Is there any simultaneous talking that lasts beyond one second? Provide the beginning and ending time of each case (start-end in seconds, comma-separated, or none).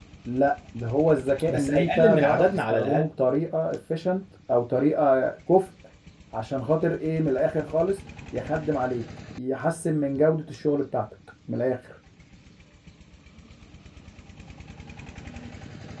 1.5-3.1